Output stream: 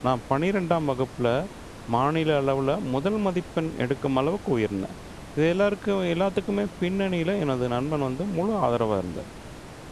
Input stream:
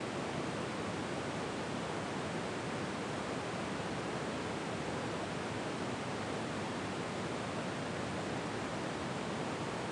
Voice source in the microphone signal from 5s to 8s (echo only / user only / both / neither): neither